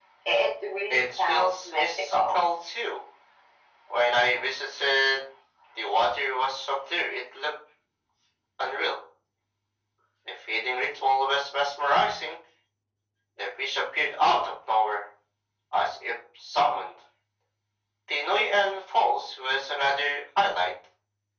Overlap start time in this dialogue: 0.9 s

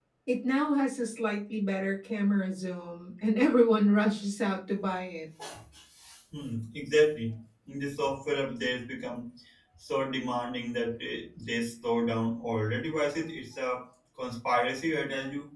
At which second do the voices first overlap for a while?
none

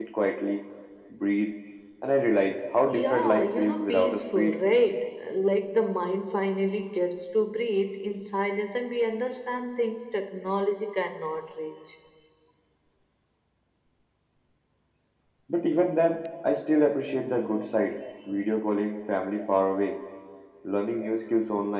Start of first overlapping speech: 2.9 s

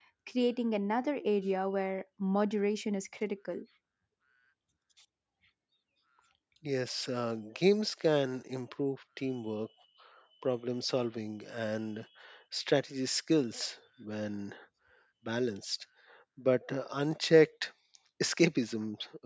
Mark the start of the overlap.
none

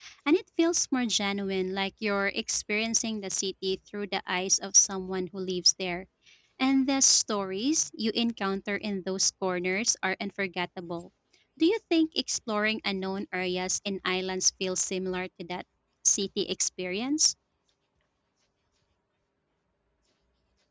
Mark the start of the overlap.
none

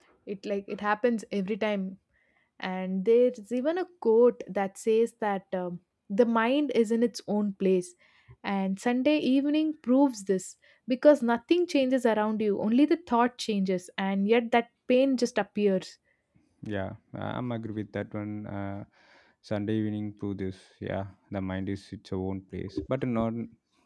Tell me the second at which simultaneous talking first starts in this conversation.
none

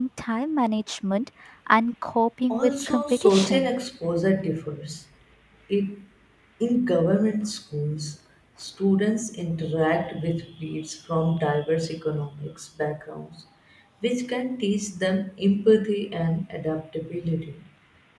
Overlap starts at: 2.5 s

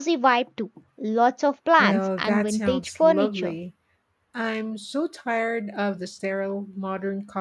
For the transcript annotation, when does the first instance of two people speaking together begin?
1.8 s

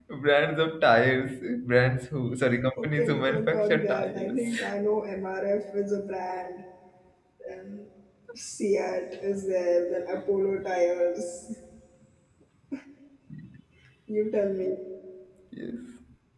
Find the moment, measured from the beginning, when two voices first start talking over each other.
2.8 s

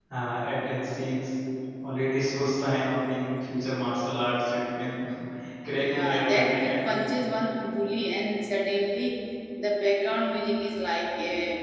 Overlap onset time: 5.7 s

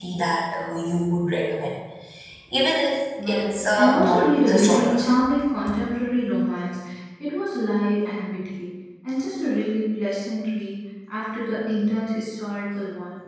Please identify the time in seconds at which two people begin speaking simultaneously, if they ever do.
3.3 s

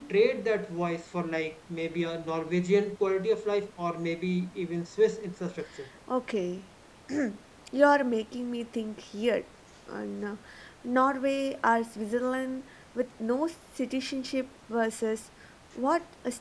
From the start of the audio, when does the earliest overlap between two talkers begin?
none

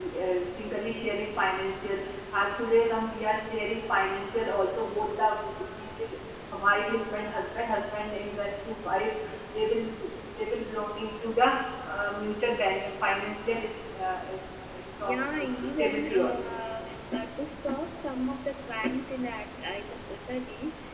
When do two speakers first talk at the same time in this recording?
14.9 s

